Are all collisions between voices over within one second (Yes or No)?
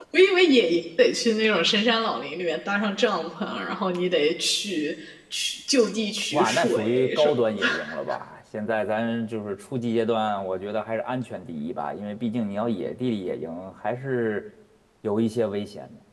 No